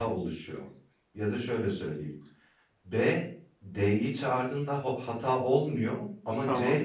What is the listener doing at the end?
listening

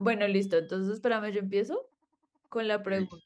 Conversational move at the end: listening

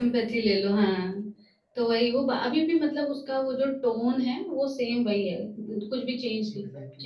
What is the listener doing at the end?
taking over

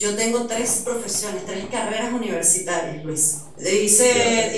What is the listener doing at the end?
listening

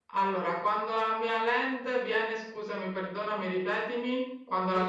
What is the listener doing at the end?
taking over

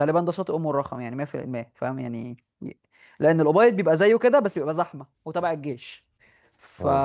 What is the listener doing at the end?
listening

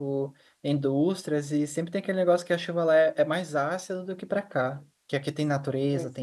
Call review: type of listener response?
listening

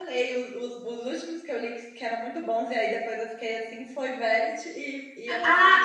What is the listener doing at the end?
taking over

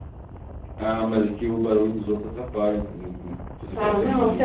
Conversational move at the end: taking over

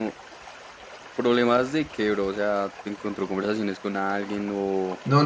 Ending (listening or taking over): taking over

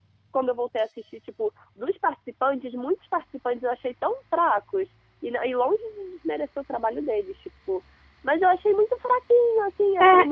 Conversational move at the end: listening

